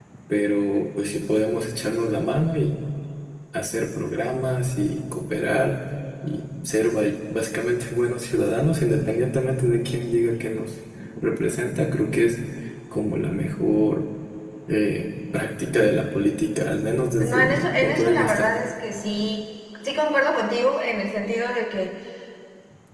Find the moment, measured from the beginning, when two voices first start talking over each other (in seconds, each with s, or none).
17.2 s